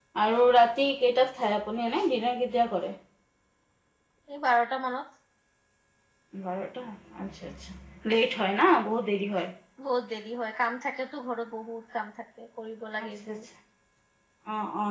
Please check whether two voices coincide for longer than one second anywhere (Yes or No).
No